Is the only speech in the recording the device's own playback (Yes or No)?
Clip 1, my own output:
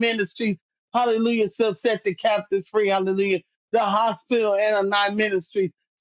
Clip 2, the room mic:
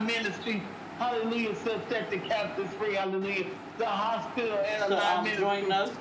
No